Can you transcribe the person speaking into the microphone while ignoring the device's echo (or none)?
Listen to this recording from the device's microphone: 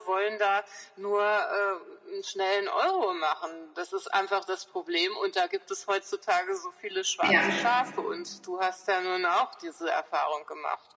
Ja.